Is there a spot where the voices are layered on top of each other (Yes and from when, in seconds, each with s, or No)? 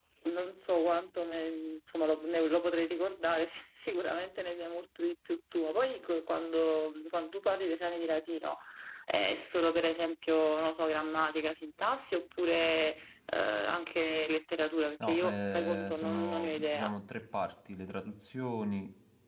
Yes, from 15.0 s